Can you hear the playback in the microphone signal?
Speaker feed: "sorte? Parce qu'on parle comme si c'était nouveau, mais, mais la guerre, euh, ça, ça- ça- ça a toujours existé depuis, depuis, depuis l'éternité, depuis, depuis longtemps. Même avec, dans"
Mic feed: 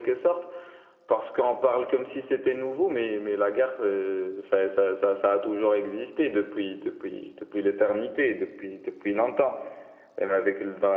Yes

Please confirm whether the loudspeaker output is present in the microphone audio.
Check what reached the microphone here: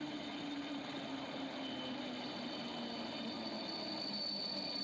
No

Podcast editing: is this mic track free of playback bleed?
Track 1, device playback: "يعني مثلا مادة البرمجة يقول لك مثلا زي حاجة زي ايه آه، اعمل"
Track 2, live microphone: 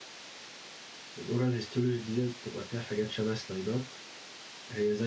Yes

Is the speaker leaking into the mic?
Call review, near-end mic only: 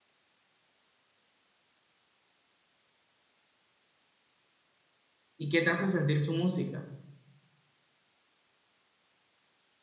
No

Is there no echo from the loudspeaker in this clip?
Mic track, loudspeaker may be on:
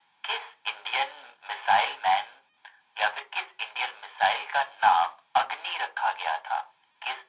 No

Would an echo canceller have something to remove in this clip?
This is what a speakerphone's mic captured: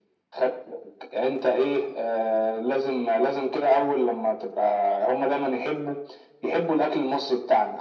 Yes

